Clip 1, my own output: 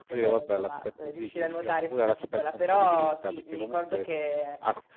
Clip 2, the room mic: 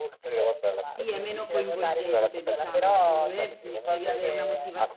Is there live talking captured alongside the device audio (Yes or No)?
Yes